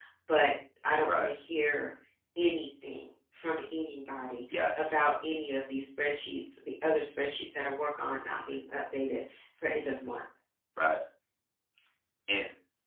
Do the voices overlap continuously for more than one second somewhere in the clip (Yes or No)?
No